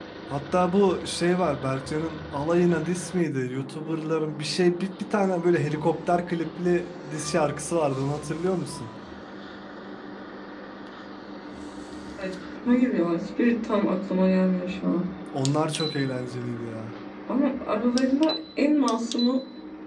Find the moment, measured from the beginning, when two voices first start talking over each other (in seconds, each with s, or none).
none